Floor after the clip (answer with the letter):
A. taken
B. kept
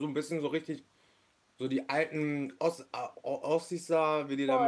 A